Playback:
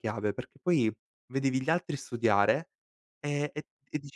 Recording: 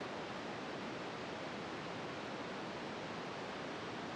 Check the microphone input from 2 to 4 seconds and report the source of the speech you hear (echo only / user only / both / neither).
neither